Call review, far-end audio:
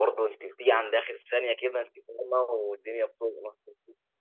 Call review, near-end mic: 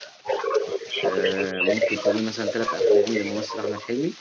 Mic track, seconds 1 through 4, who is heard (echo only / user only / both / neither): both